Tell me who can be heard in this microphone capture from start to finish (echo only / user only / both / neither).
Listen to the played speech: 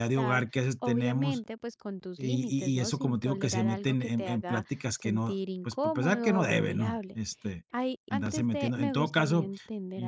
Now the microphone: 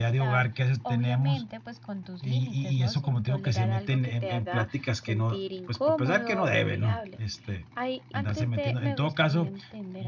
echo only